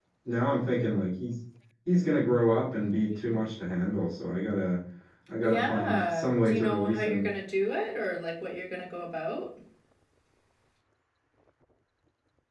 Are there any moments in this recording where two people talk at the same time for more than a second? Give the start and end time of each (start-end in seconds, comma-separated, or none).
5.4-7.3